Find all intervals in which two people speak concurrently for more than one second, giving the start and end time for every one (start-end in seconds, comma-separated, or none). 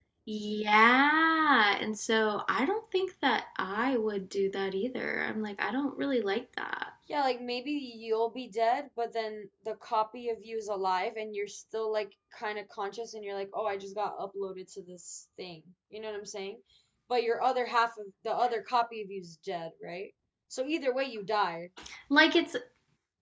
none